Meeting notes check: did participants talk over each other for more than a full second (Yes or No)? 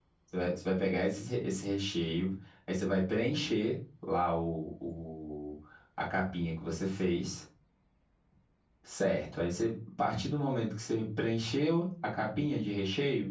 No